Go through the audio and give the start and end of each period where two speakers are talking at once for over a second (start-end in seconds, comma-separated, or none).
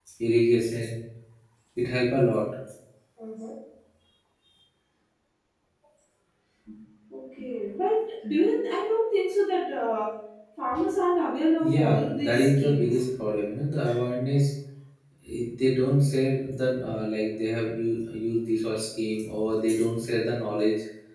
11.6-13.0